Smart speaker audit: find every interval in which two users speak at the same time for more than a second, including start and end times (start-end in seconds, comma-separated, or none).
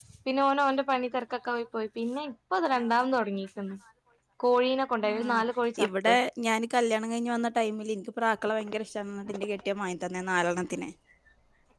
none